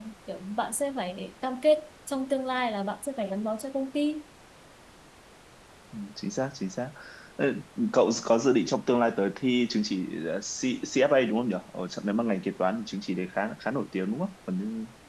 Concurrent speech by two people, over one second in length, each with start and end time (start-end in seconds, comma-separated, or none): none